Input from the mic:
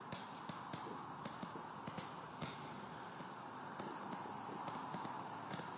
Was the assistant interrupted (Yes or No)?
No